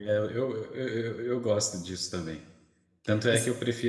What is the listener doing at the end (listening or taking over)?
listening